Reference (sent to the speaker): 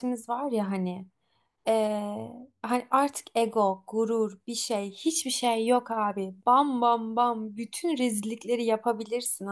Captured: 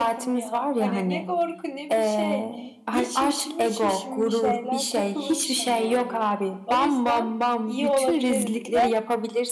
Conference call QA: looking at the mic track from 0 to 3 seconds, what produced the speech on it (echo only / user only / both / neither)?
both